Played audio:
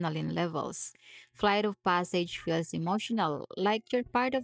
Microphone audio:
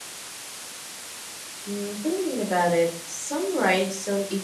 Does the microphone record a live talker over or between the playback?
Yes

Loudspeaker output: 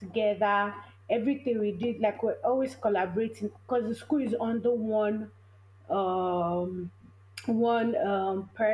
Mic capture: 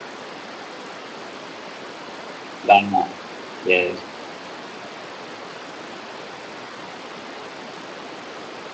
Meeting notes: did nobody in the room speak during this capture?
No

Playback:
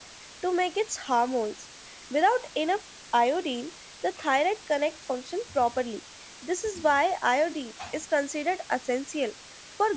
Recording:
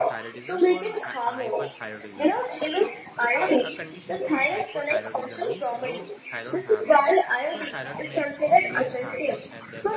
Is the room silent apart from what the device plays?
No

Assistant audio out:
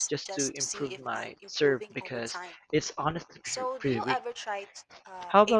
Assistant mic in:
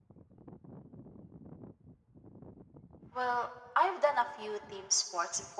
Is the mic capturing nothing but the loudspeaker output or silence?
No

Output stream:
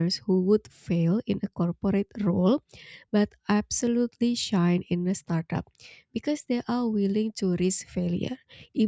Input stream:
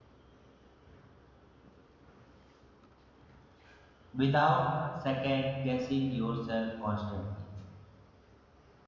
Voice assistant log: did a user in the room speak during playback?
Yes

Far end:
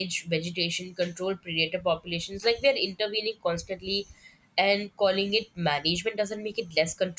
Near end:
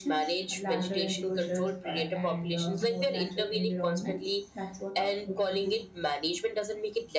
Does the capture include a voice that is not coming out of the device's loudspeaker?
Yes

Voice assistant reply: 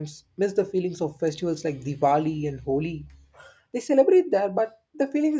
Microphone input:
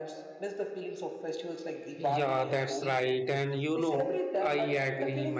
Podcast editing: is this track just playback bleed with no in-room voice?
No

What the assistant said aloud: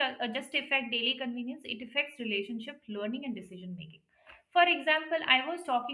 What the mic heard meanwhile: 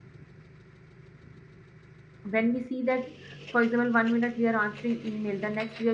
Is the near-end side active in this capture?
Yes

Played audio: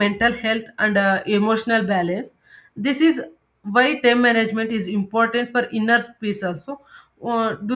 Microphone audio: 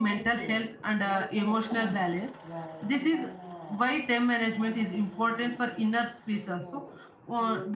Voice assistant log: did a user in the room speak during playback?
Yes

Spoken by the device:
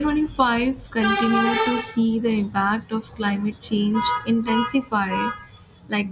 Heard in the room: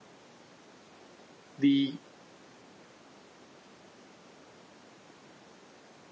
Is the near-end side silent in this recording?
No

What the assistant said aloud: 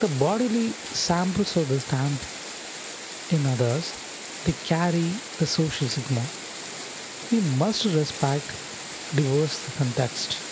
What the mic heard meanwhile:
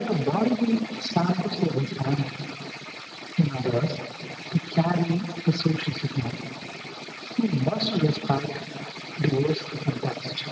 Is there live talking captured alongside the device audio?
No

